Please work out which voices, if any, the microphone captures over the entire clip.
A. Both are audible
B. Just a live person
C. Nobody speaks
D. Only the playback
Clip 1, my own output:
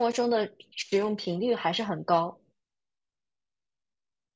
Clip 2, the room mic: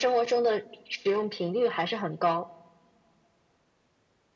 D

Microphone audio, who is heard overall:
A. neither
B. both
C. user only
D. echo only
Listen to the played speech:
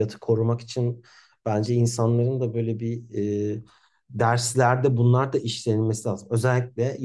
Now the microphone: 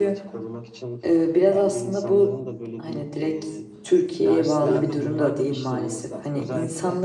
B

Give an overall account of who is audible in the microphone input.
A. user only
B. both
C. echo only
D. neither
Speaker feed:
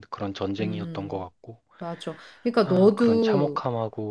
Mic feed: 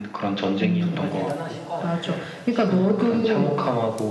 B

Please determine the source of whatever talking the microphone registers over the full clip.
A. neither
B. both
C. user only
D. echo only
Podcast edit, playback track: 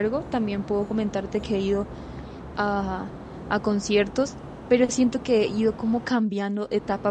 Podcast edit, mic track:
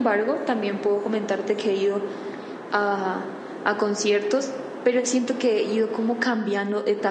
D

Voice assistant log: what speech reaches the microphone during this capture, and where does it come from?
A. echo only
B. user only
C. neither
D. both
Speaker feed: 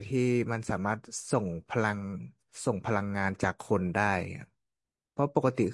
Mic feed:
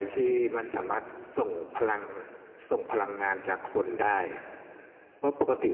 A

